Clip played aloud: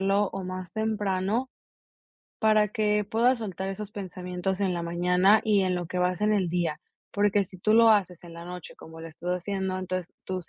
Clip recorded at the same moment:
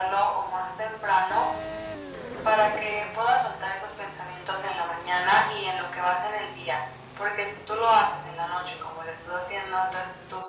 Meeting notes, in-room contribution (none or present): none